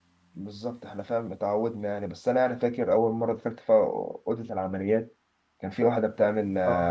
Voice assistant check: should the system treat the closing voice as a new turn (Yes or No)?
No